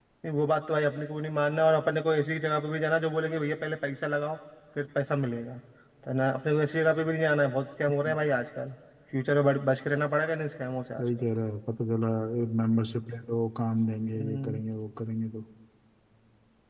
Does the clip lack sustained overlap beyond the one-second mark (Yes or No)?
Yes